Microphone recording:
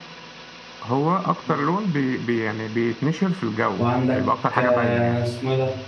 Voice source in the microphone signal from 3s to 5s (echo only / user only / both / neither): both